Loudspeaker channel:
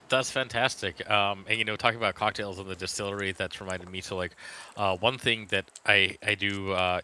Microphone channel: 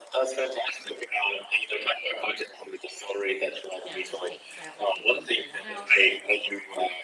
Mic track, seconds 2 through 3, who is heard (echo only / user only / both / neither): echo only